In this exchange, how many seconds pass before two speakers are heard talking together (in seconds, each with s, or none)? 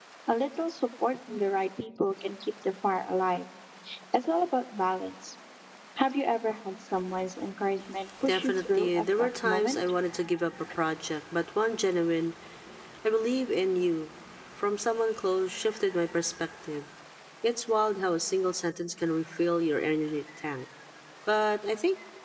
8.3 s